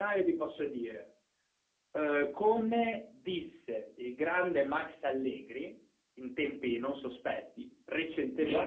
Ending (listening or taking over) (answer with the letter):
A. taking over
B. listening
A